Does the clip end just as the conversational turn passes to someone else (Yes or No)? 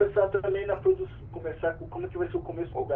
Yes